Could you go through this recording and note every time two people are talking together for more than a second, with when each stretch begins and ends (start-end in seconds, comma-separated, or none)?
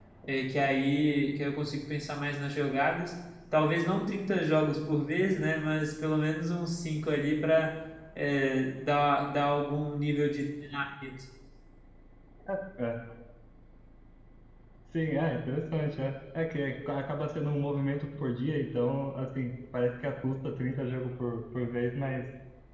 none